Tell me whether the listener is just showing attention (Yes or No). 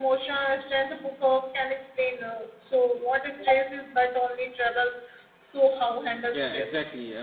No